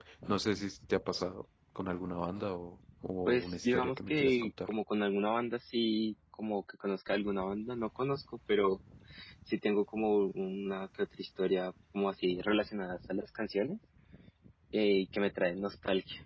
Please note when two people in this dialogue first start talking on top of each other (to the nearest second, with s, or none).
3 s